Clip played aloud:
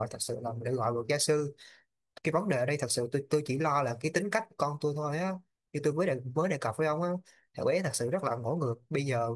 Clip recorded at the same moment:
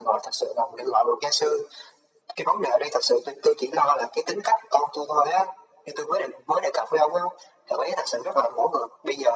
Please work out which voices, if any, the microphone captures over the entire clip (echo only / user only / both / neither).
echo only